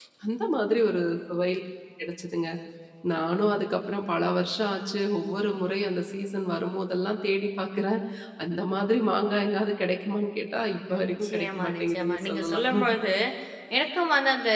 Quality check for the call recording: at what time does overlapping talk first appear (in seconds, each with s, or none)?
10.9 s